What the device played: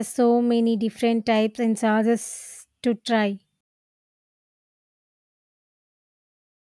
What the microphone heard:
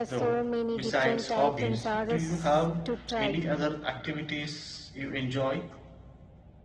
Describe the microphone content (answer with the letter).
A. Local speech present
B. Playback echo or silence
A